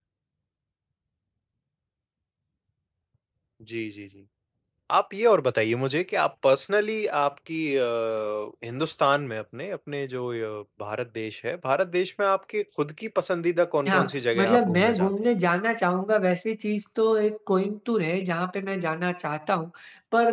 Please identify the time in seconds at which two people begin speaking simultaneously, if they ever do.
13.8 s

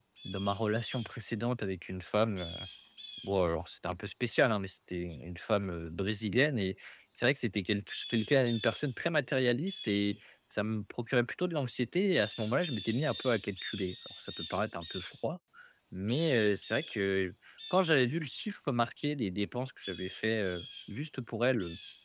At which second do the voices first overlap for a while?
none

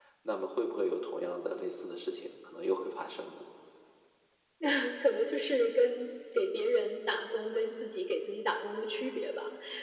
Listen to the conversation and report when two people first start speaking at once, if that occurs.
none

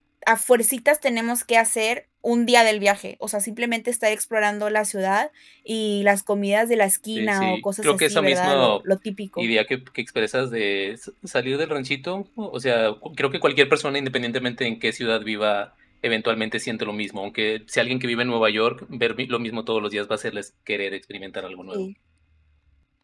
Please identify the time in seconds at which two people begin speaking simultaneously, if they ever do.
7.2 s

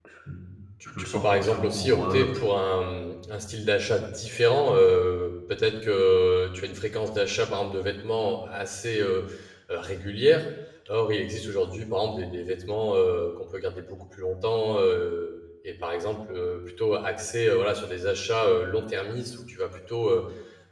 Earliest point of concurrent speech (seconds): 0.9 s

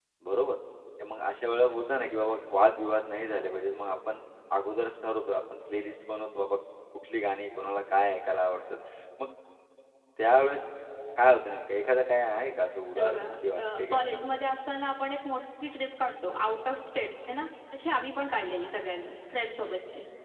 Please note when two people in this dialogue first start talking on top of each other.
12.9 s

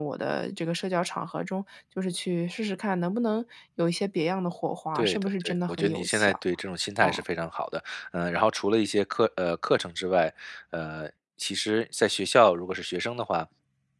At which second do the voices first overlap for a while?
5.0 s

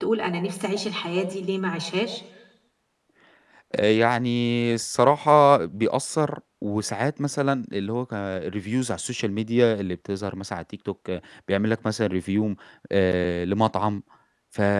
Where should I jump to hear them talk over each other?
none

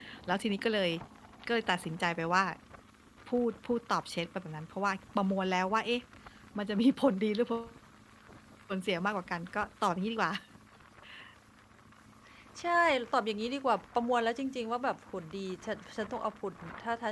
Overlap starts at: none

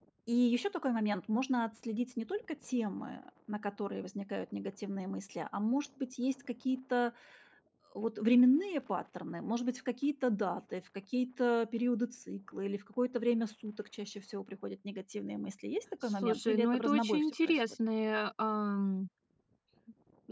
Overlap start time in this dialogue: 16.2 s

